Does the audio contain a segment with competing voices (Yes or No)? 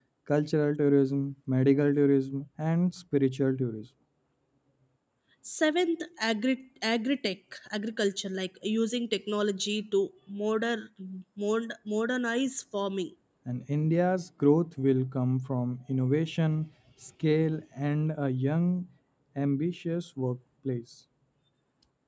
No